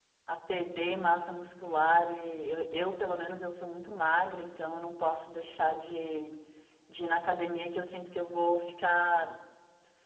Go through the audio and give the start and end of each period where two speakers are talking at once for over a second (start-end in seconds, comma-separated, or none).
none